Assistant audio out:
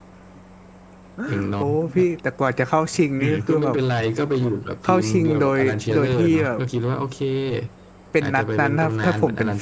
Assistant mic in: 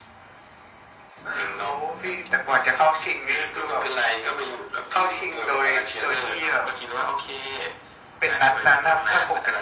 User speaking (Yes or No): No